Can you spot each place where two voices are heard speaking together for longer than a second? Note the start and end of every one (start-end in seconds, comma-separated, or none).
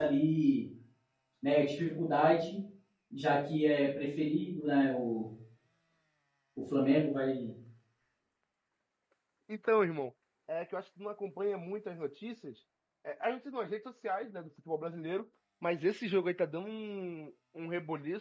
none